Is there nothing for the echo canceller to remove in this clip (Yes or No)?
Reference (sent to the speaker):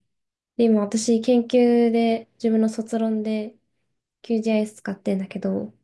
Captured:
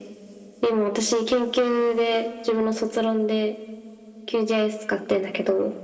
No